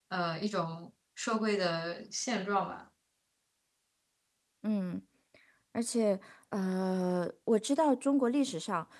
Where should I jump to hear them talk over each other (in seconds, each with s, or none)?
none